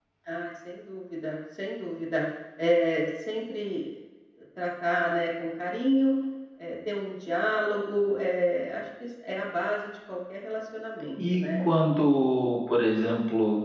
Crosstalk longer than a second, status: none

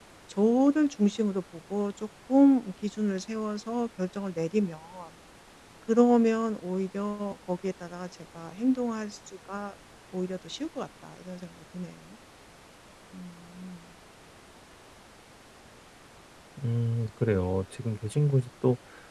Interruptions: none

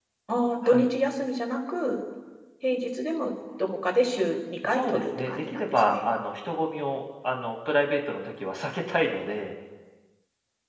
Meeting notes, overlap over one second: present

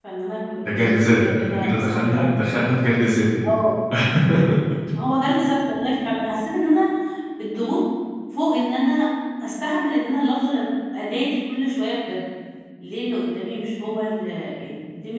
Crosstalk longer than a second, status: present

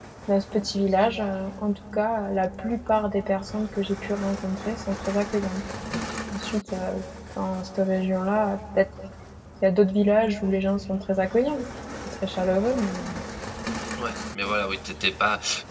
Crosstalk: none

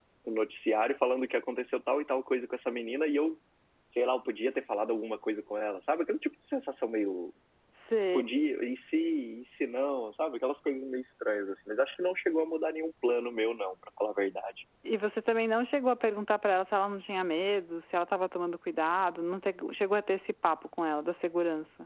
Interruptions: none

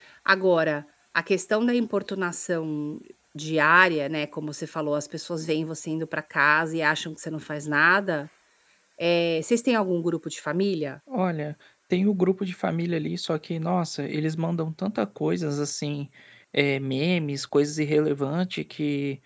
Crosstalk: none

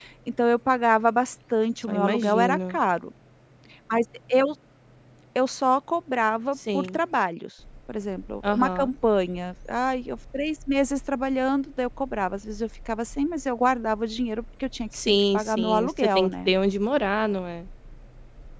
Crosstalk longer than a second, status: present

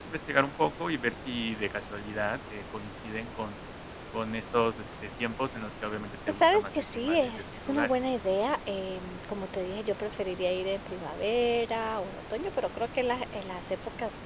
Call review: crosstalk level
present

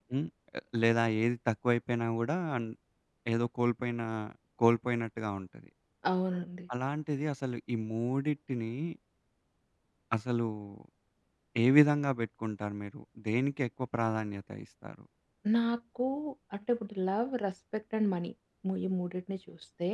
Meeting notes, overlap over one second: none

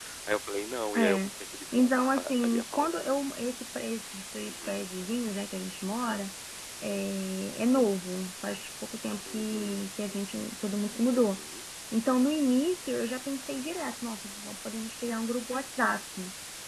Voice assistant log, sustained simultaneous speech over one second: present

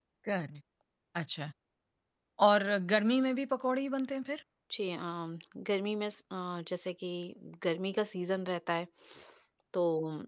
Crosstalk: none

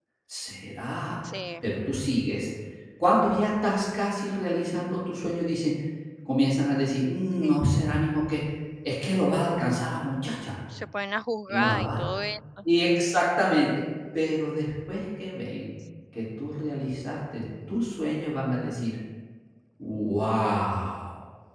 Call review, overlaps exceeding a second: none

